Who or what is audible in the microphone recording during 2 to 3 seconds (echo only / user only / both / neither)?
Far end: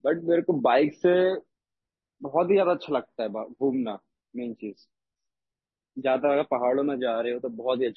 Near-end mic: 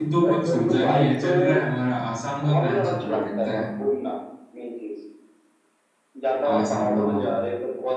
both